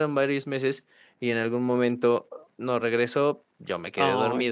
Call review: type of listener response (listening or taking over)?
listening